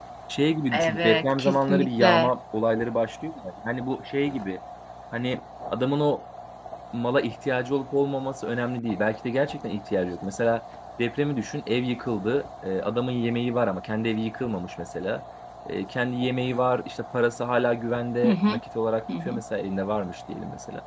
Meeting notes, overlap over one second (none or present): present